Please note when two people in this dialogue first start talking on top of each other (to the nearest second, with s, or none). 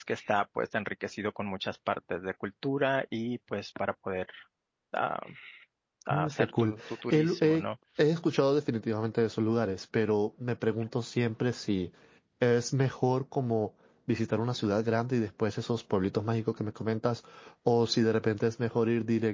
6 s